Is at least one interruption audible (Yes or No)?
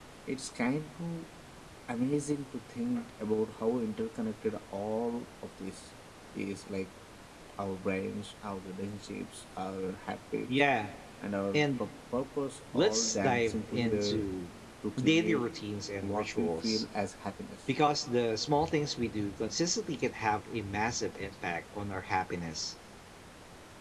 Yes